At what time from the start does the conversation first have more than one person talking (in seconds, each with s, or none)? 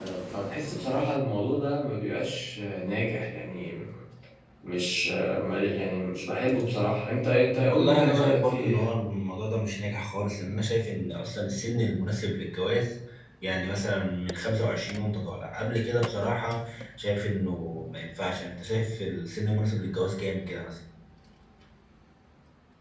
7.7 s